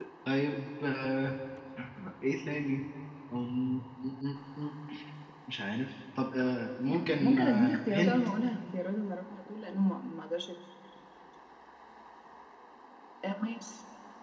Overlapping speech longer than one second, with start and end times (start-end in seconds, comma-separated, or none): 6.9-8.2